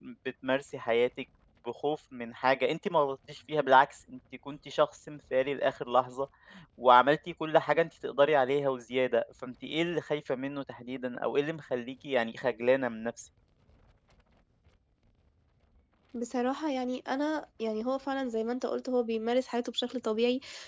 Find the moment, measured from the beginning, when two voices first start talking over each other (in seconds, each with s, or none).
none